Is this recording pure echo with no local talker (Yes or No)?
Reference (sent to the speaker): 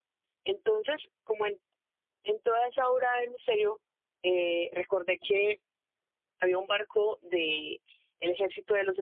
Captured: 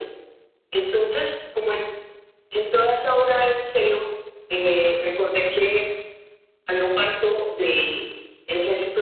Yes